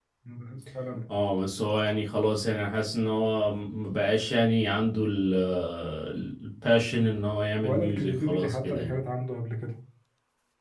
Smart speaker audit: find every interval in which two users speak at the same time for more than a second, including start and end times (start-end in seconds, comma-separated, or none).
7.6-9.0